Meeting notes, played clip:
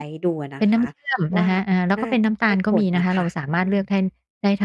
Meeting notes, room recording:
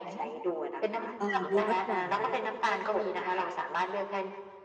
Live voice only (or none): เอ่อมีรสหวาน